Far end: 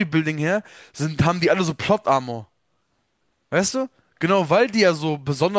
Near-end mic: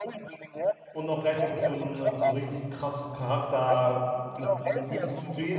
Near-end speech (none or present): present